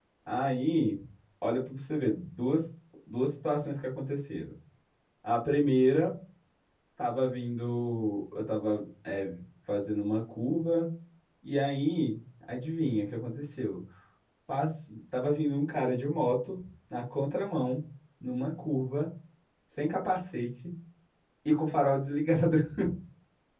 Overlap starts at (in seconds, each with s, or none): none